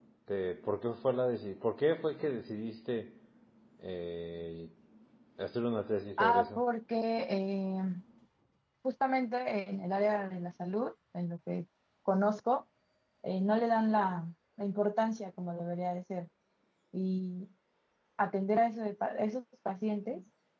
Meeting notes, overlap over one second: none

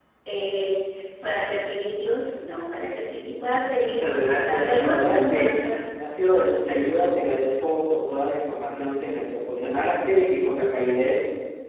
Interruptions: present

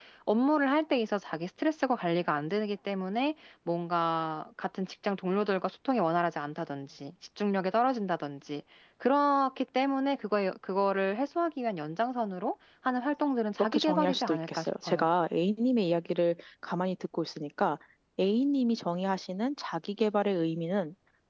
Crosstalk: present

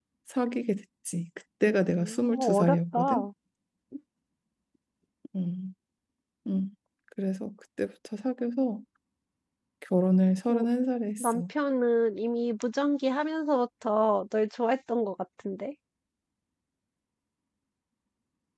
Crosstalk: present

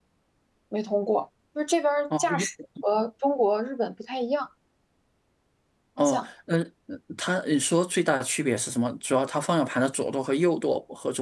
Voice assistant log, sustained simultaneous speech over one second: none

